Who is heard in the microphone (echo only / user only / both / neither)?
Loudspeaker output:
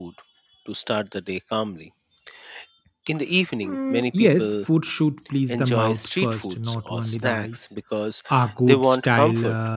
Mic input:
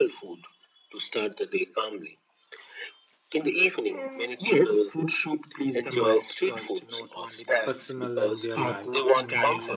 both